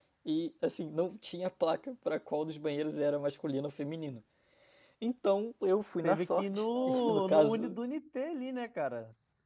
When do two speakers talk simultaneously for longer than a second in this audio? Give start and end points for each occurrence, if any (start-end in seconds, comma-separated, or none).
6.0-7.8